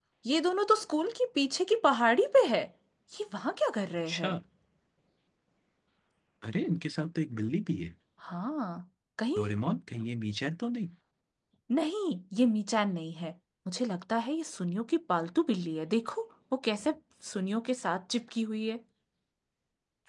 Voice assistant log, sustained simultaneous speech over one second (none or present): none